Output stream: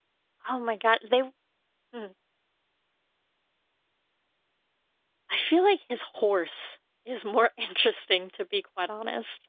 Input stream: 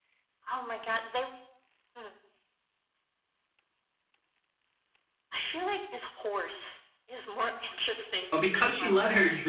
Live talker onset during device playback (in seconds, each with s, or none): 8.3 s